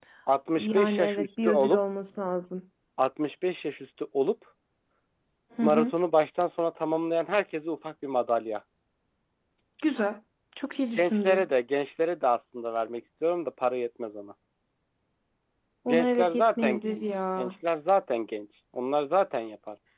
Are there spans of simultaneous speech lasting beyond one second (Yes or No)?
Yes